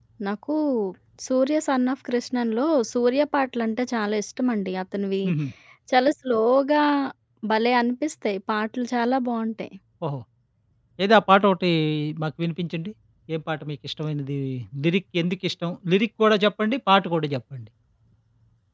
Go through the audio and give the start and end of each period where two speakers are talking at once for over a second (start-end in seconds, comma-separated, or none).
none